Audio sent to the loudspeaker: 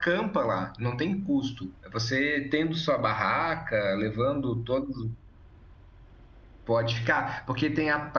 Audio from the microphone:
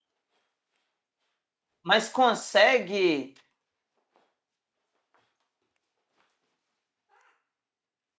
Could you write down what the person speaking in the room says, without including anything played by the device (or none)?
mas consegue.